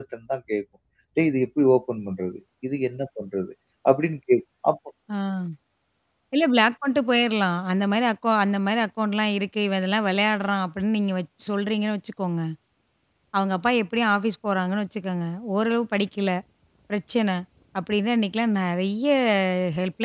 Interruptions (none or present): none